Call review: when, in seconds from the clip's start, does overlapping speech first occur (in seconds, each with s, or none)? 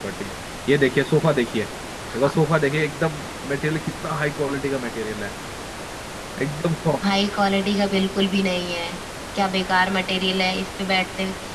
none